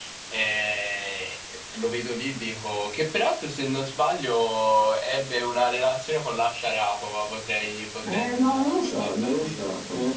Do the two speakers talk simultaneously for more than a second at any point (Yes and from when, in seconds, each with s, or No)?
Yes, from 8.0 s